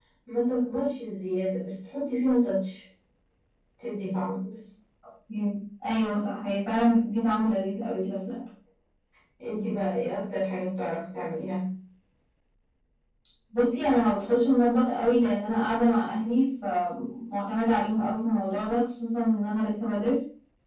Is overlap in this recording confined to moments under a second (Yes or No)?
Yes